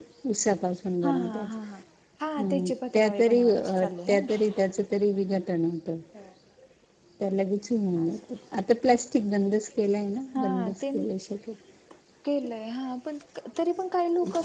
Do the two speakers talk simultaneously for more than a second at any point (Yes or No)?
Yes